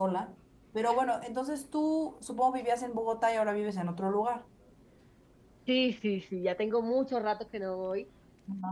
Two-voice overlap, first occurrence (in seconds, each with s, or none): none